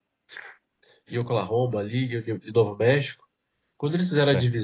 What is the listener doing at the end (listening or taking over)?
listening